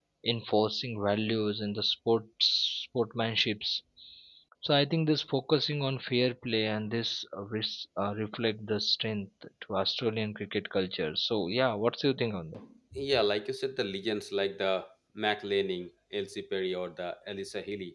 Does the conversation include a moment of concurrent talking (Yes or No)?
No